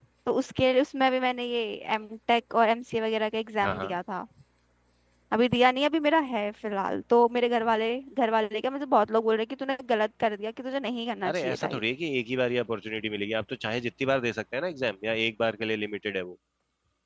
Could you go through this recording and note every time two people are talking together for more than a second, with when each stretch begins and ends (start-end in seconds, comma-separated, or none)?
none